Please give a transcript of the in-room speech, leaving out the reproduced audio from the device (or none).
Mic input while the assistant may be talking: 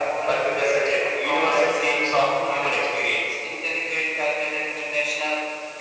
none